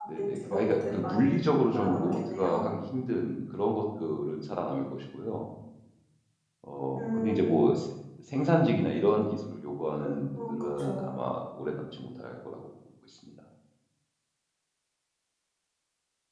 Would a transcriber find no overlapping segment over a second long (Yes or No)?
No